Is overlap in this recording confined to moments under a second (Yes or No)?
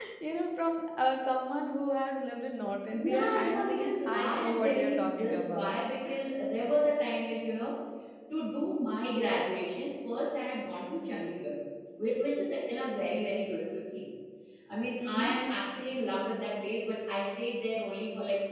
No